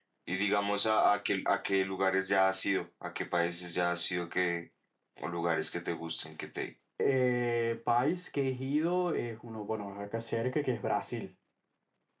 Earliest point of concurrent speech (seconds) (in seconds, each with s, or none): none